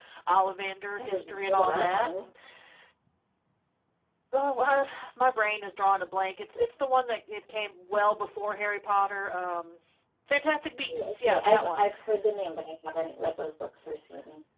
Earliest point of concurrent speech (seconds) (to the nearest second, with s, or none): 1 s